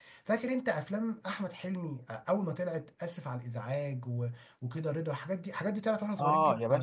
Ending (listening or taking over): taking over